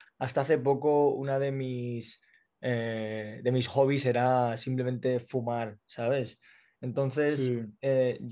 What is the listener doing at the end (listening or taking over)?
listening